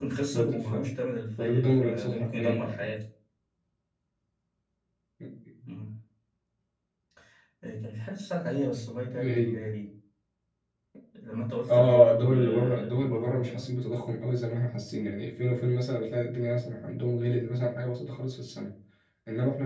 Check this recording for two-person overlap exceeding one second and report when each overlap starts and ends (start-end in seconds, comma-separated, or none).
1.4-3.0, 11.7-13.7